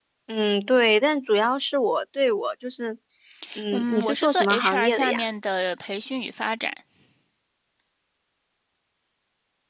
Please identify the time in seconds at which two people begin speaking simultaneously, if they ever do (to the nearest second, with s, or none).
4 s